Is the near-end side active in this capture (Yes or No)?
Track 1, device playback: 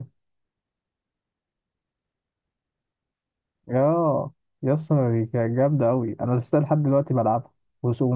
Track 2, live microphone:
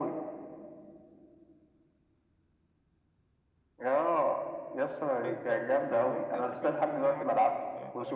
Yes